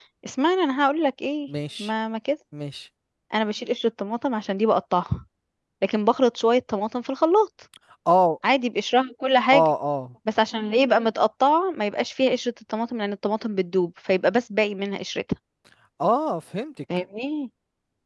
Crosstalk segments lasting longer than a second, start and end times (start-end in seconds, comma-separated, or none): none